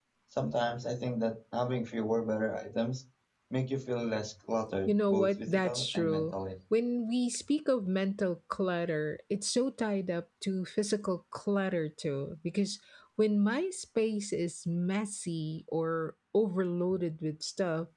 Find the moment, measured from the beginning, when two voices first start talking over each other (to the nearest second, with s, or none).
5 s